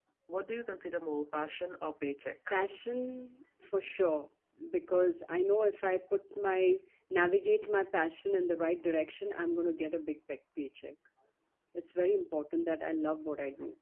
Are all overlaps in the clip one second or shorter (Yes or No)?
Yes